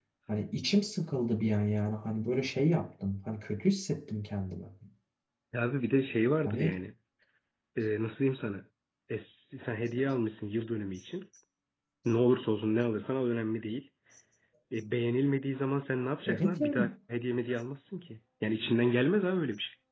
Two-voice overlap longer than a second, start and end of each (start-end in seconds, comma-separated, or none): none